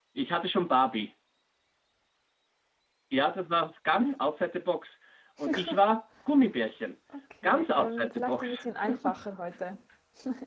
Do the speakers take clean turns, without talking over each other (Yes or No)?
No